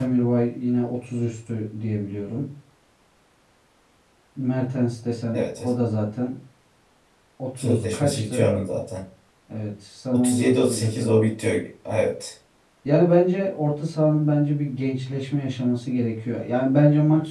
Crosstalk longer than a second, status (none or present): present